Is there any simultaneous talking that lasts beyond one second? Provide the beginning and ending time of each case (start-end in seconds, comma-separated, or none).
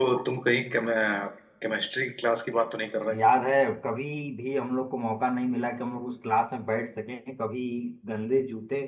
none